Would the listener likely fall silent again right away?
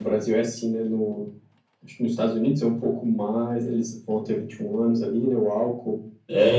No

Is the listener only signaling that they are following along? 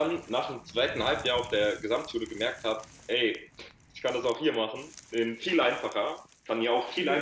Yes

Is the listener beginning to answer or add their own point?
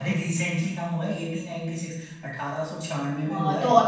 Yes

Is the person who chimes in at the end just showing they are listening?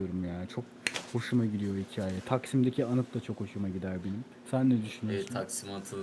No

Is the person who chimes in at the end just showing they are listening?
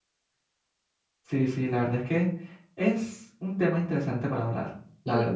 No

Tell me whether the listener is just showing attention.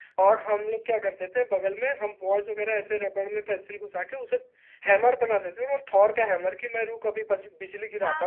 No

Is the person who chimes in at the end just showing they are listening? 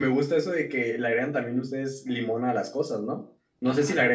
Yes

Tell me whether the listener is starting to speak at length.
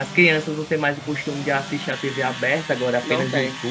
No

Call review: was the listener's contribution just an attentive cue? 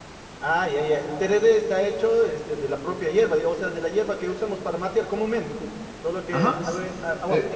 No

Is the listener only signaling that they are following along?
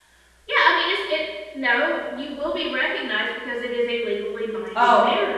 No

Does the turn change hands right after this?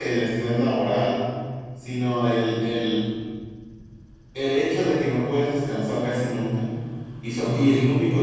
No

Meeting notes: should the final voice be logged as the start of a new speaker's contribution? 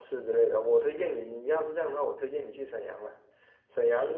No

